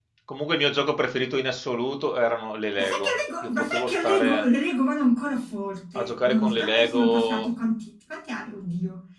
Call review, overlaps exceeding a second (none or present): present